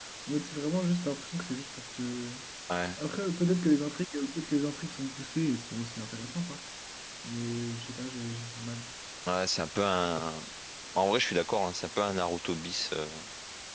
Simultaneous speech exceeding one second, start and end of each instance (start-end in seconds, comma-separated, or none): none